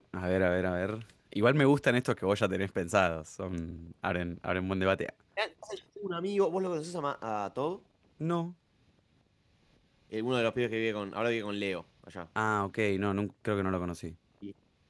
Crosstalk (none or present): none